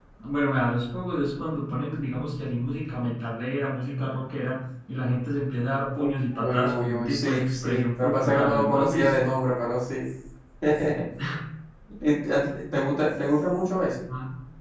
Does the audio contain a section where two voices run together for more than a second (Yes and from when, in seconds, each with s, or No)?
Yes, from 6.0 s